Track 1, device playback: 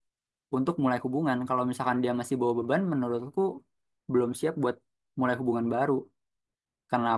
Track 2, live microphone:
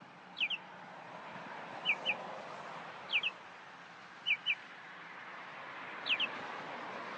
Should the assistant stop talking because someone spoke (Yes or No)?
No